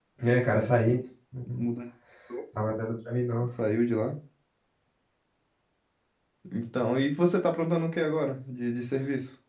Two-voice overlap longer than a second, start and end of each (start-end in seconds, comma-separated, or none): none